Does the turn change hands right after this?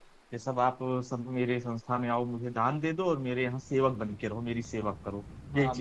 Yes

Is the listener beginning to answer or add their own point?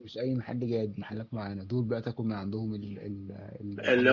Yes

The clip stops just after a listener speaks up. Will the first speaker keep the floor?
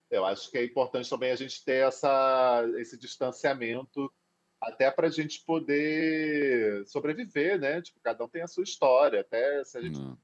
Yes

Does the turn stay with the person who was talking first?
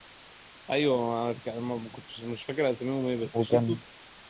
Yes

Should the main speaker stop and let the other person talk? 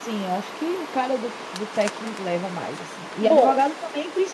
No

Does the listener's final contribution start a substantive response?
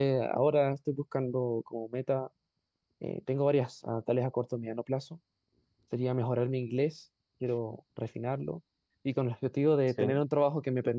No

